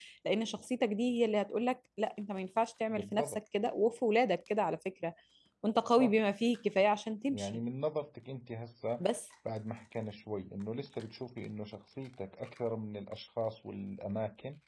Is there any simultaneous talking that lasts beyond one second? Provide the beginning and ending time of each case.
none

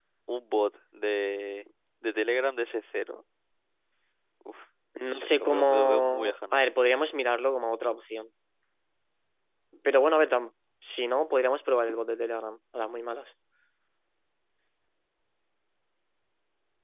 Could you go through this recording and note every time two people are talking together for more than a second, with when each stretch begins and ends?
5.0-6.6

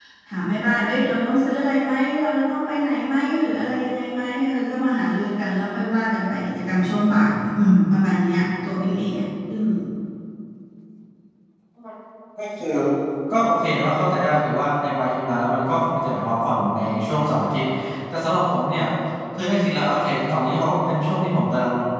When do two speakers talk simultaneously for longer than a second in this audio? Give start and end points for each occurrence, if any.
none

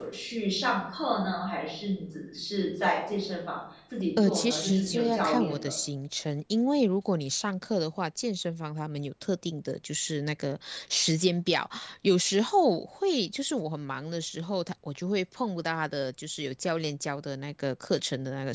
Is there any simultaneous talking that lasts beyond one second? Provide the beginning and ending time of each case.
4.2-5.7

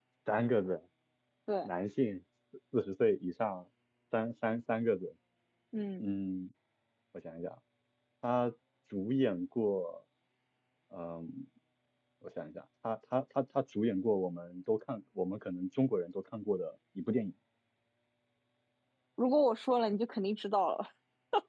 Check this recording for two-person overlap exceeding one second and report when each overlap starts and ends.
none

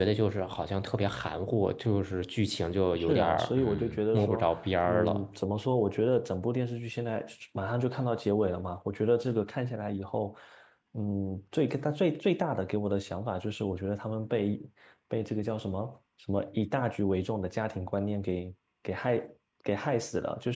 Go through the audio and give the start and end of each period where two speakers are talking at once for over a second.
3.0-4.5

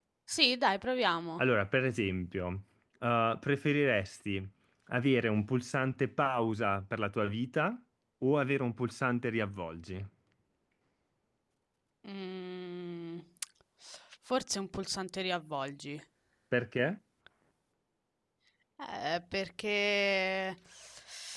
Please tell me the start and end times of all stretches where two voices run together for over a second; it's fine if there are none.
none

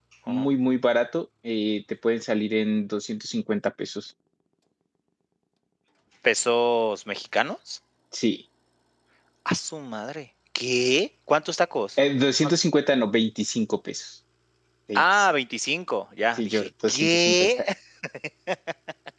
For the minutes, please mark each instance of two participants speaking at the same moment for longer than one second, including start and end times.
16.4-17.6

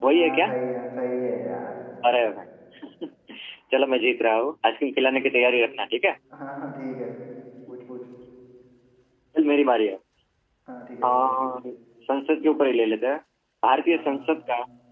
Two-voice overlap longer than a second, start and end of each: none

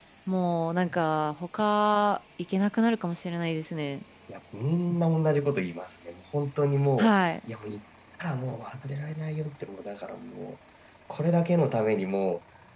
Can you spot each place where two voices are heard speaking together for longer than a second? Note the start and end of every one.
none

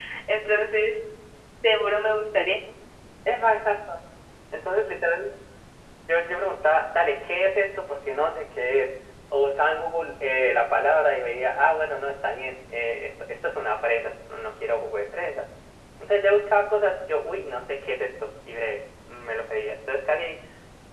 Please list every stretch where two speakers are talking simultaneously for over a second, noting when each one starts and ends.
none

